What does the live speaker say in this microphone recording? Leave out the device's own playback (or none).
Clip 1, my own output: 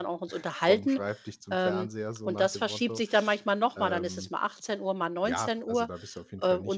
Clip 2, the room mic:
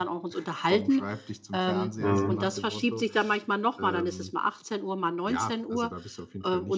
Mhm.